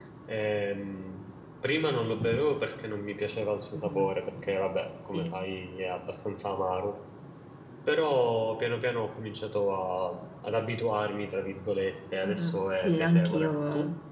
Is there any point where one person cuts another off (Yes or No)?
Yes